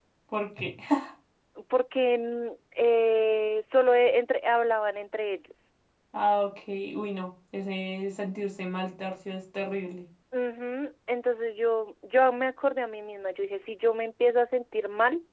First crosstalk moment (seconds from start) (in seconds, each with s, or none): none